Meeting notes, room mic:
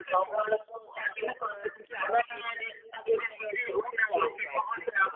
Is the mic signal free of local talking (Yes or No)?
Yes